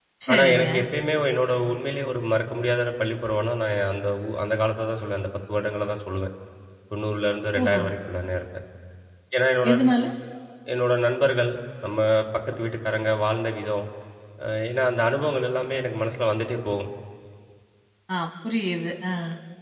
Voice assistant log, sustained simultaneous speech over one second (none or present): none